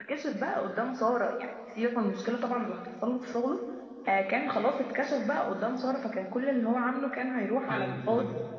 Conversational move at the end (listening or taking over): taking over